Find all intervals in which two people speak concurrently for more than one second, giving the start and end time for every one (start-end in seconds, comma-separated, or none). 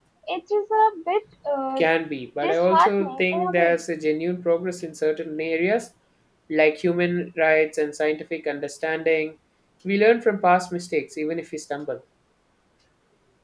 2.4-3.8